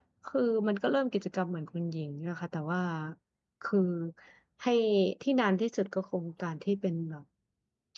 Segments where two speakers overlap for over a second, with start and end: none

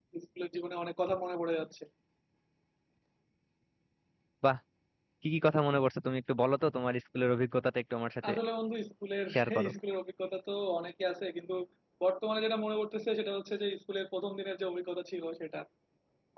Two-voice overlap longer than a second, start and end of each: none

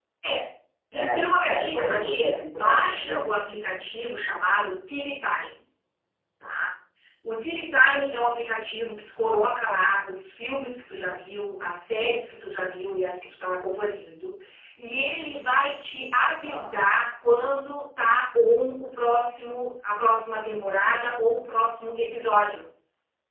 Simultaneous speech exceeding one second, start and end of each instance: 0.9-3.4

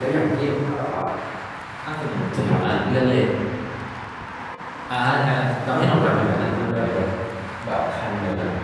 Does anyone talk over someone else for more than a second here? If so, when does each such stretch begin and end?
5.7-7.0

